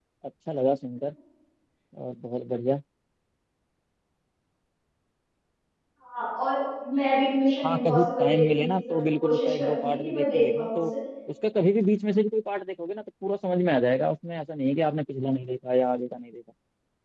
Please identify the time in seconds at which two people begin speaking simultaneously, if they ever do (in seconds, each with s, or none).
7.7 s